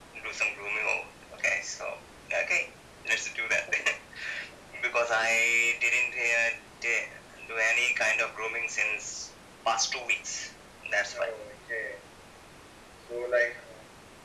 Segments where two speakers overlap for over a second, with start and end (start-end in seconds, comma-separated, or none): none